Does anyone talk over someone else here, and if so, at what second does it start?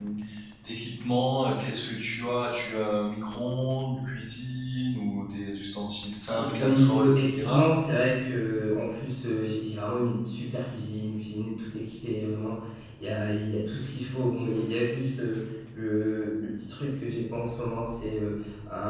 6 s

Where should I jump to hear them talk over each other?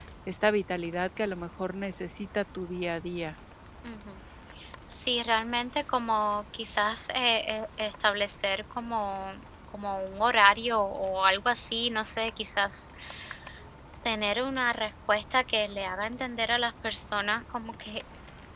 none

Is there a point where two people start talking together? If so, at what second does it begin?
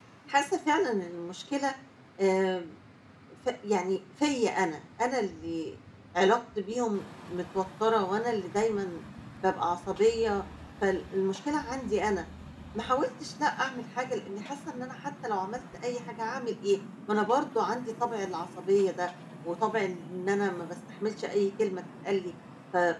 none

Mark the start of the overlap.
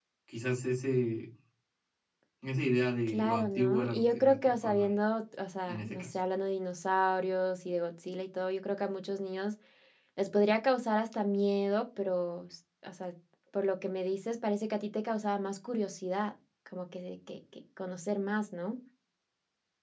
3 s

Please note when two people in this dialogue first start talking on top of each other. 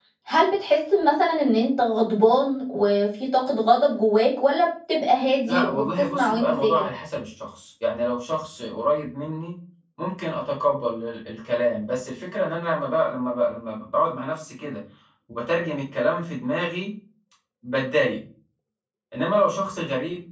5 s

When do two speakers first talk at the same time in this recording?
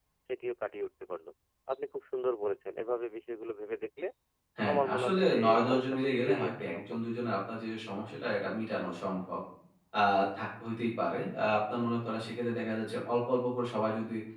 5 s

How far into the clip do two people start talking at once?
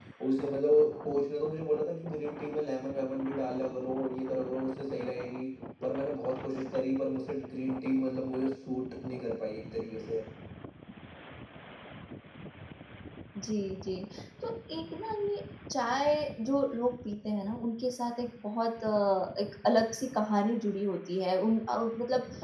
none

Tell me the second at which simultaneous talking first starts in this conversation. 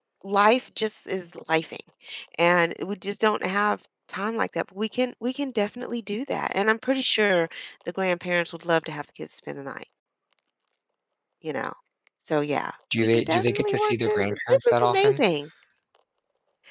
13 s

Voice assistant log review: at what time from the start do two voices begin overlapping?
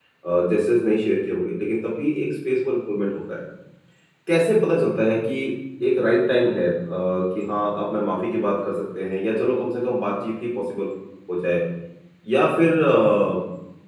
none

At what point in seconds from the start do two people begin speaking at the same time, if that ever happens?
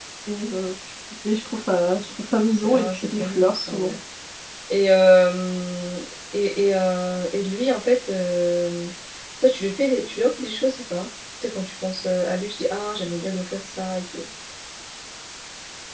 3 s

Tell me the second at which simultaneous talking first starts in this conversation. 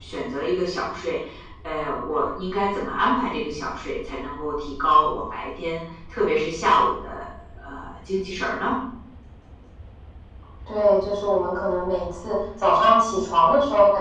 none

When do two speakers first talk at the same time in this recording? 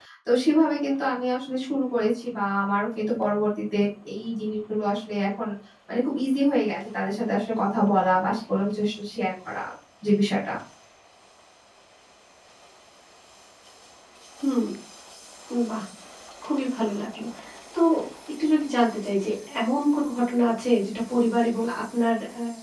none

